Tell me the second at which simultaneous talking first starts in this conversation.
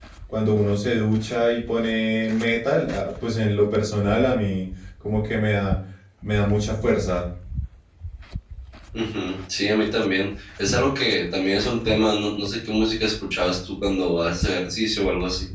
none

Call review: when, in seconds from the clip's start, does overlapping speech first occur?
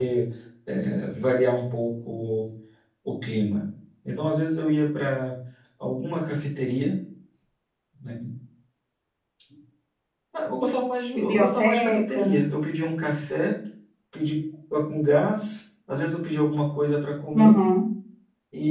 11.2 s

